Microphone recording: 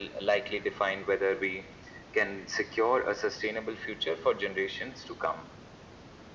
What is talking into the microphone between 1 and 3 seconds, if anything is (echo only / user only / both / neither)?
echo only